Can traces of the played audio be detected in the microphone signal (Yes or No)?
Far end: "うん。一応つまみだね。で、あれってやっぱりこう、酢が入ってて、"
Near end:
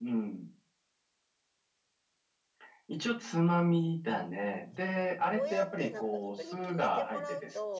Yes